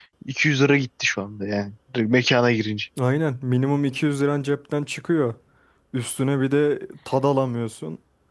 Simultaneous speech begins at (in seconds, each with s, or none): none